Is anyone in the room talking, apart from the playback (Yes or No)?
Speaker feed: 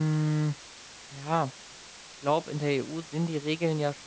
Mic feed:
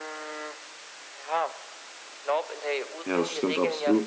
Yes